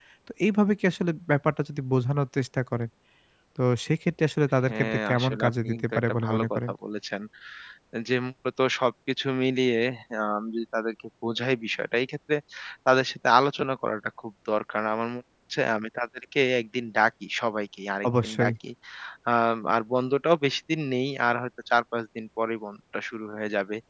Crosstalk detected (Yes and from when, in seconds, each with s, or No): Yes, from 4.7 s